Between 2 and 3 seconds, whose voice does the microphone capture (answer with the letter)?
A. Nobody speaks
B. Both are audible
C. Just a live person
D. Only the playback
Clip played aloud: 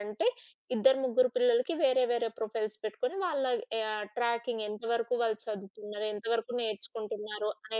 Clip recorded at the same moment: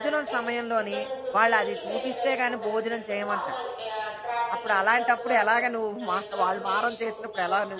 B